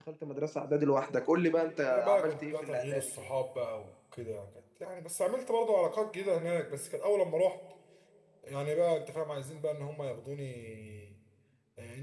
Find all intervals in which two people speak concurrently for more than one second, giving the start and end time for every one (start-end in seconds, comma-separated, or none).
1.9-3.1